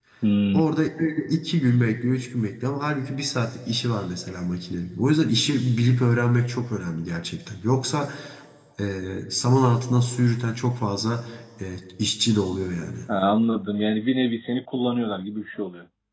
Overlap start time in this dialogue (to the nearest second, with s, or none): none